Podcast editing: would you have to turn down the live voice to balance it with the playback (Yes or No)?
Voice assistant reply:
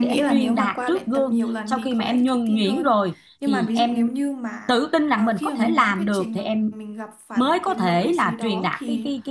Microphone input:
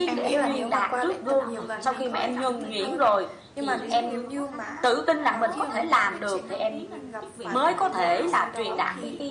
No